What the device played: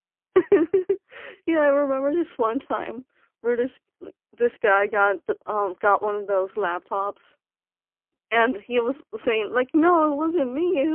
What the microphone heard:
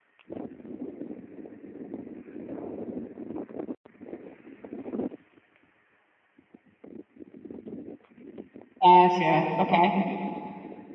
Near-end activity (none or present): present